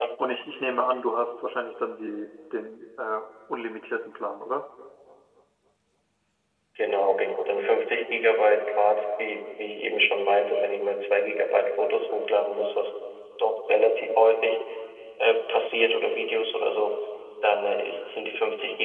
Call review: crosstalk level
none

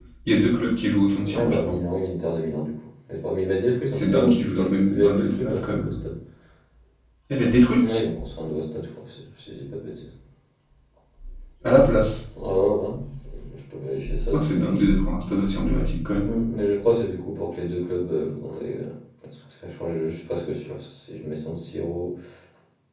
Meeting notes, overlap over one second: present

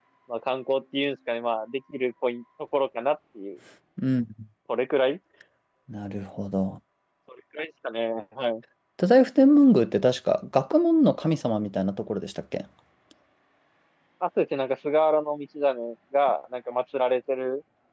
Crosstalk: none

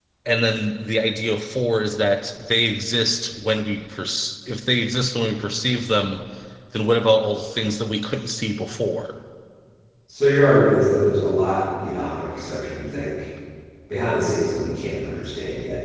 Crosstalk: none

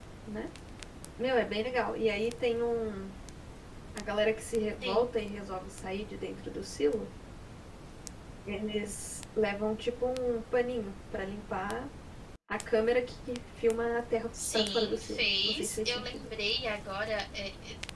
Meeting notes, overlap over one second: present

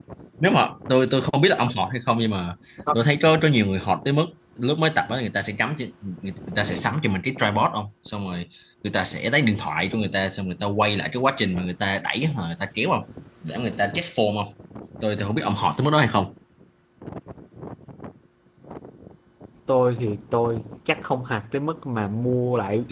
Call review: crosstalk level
none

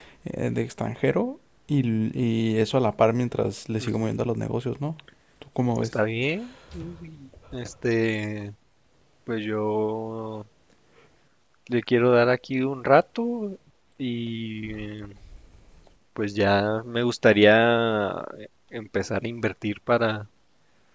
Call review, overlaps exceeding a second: none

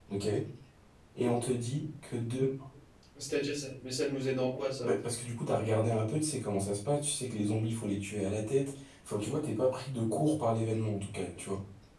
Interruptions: none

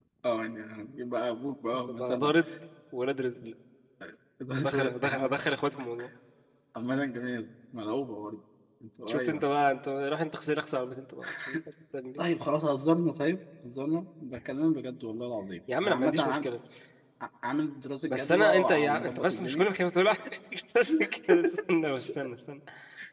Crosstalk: present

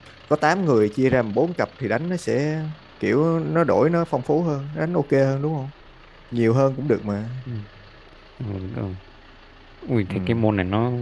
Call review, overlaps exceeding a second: none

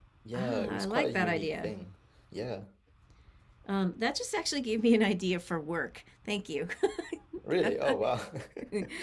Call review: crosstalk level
present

